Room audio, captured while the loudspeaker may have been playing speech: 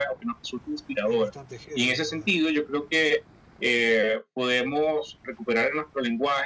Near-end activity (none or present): present